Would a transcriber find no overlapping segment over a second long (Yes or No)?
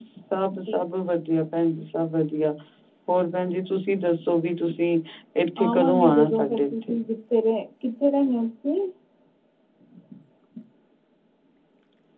No